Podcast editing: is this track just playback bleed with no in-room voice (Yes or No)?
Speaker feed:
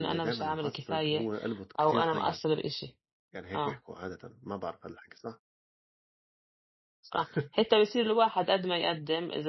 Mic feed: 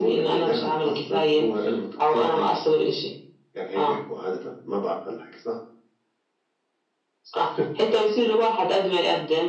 Yes